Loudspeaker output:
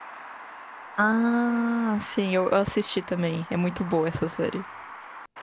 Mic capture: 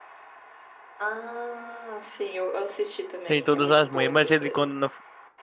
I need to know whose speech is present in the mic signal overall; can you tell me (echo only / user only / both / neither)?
both